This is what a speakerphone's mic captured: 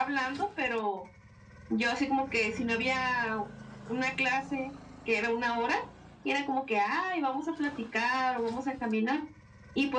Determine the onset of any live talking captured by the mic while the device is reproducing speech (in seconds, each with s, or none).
none